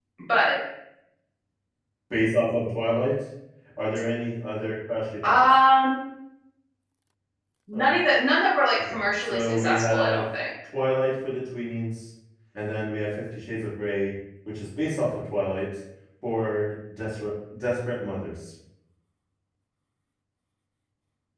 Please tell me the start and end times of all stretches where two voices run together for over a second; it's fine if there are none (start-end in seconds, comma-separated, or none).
8.8-10.2